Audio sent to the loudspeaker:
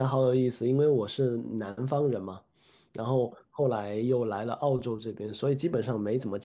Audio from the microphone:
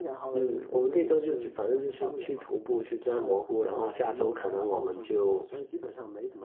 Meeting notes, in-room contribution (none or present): present